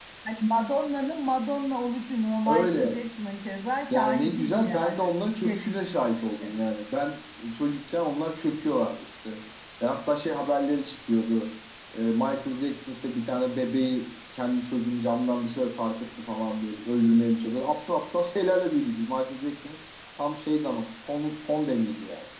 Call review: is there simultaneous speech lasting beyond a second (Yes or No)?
Yes